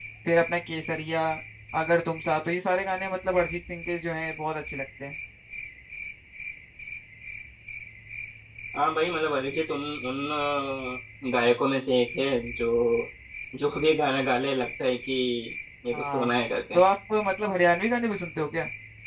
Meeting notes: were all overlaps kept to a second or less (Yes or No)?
Yes